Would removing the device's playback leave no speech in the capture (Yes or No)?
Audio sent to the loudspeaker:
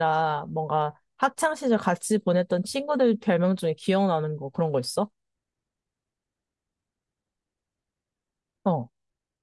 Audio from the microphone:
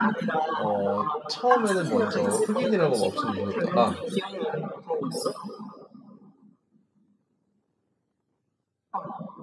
No